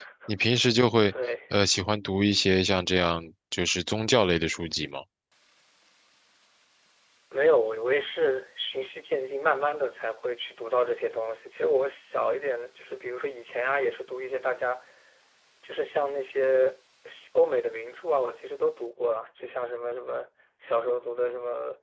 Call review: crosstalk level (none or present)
none